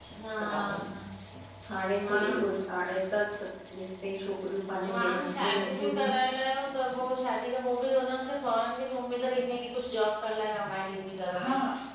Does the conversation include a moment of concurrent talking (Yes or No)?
Yes